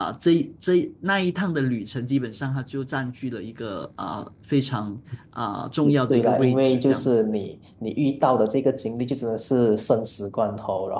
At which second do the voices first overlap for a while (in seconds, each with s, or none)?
5.8 s